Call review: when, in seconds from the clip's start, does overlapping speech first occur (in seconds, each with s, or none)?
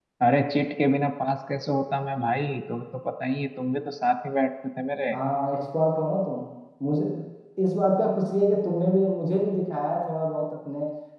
none